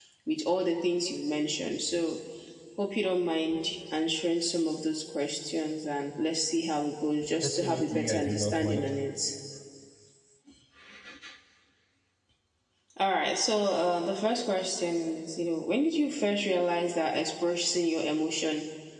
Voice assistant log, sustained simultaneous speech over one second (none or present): present